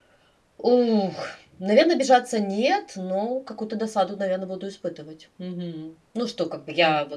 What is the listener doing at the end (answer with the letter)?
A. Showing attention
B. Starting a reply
A